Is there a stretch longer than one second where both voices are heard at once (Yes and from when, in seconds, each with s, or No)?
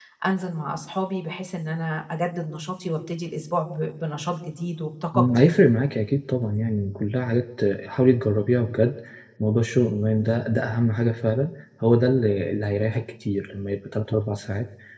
No